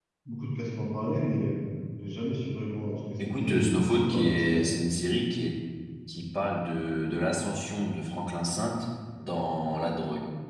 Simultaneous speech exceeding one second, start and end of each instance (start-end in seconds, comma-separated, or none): 3.4-4.6